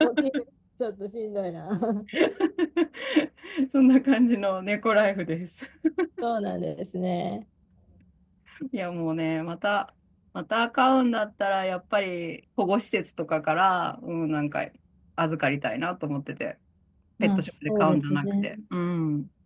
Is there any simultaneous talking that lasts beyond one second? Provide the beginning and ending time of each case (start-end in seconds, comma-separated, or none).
17.2-18.5